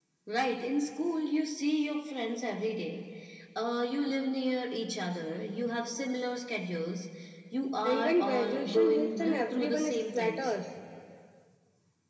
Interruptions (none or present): present